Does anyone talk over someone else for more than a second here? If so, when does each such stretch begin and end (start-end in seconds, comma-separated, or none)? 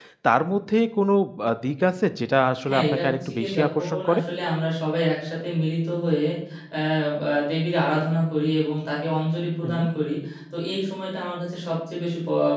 2.7-4.2